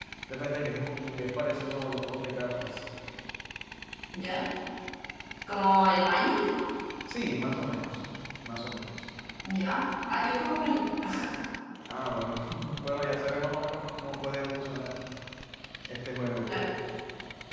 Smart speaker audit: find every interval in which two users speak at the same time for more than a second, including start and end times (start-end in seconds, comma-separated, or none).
none